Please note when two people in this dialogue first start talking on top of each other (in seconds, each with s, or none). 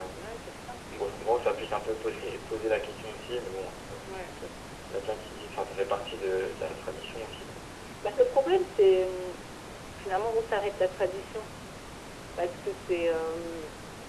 none